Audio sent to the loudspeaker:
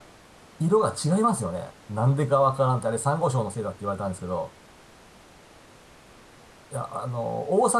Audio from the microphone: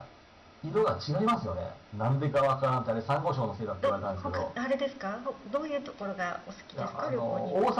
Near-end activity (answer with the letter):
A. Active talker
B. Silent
A